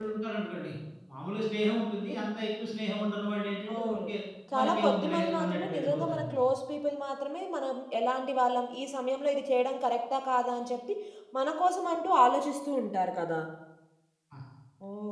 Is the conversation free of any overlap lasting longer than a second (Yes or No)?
No